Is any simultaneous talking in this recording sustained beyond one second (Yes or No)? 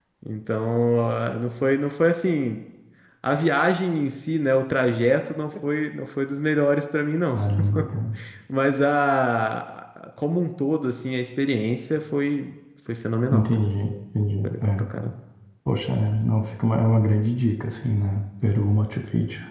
No